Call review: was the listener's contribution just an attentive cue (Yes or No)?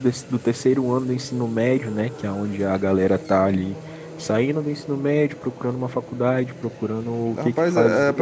No